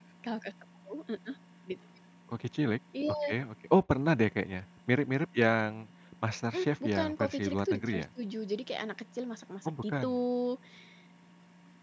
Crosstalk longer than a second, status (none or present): present